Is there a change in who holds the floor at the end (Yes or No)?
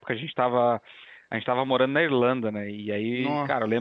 No